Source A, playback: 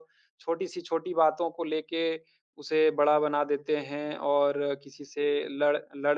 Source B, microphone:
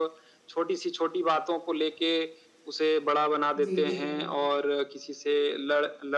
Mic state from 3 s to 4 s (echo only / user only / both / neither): both